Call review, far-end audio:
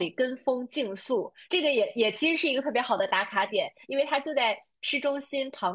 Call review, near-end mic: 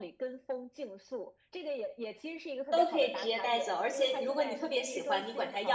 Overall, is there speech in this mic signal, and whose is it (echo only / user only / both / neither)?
both